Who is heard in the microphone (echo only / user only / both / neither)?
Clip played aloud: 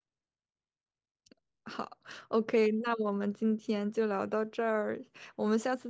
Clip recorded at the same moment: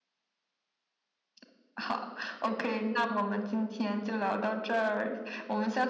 echo only